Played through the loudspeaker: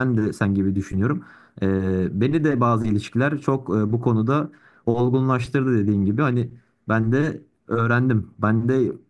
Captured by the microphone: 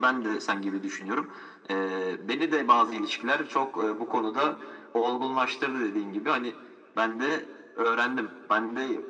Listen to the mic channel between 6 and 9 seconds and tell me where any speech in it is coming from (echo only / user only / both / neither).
echo only